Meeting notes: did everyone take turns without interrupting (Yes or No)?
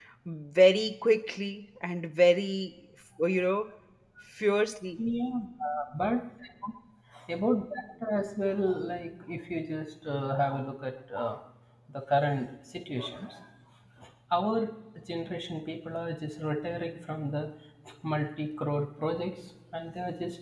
Yes